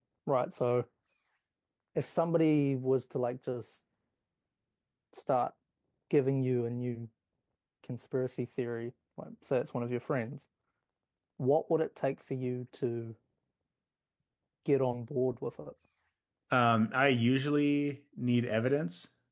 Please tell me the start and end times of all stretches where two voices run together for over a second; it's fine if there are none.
none

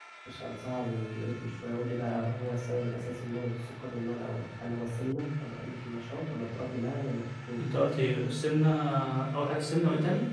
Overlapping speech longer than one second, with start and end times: none

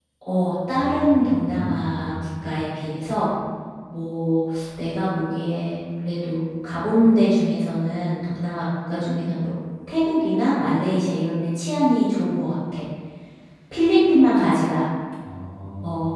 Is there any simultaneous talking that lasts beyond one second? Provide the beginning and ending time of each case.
0.7-2.1

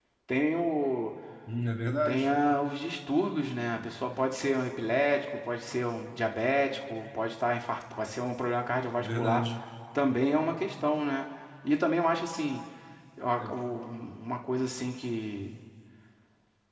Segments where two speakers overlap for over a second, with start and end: none

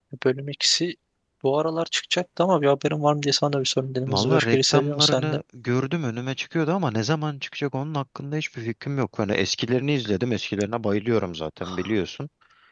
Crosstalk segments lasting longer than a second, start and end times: 4.1-5.4

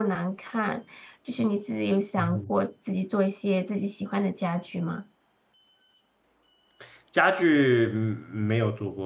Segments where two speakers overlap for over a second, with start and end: none

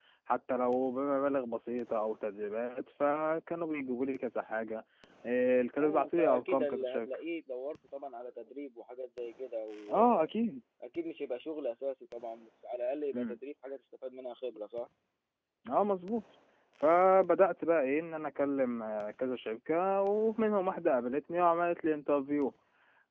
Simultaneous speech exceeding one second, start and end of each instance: 5.8-7.1

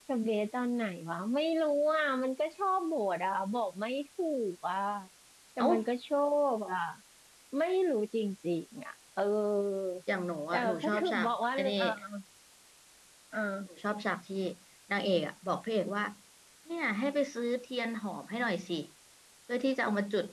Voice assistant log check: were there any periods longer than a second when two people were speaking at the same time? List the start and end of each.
10.5-11.8

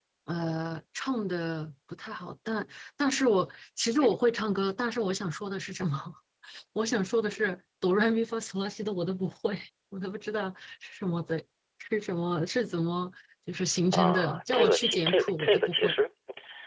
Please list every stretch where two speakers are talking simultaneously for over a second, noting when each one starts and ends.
13.9-15.9

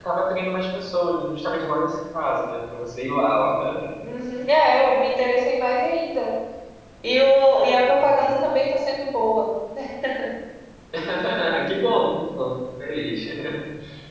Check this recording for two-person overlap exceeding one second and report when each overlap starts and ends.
none

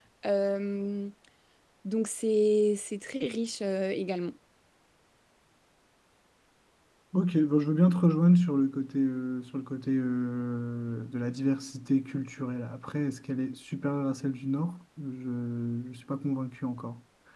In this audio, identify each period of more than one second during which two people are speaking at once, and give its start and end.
none

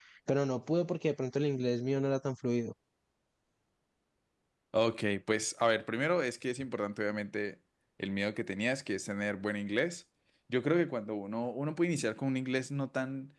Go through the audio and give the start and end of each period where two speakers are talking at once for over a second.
none

